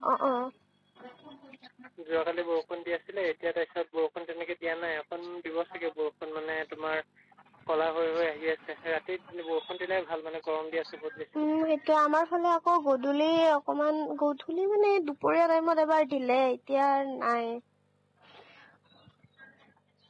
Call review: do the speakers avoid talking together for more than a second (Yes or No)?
Yes